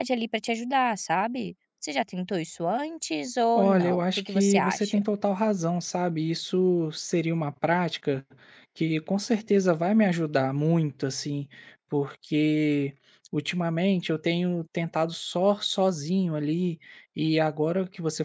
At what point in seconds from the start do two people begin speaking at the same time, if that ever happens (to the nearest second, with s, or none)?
4 s